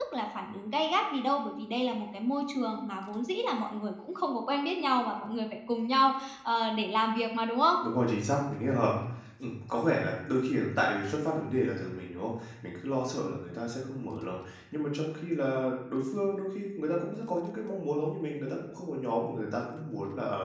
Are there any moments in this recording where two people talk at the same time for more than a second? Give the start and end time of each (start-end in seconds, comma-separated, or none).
none